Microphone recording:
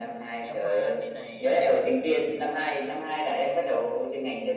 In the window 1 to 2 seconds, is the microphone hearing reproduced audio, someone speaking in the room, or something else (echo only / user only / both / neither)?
both